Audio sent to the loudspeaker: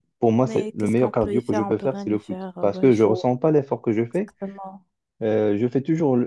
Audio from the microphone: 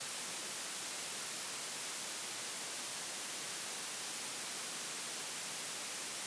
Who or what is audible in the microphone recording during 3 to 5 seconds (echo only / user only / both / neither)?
neither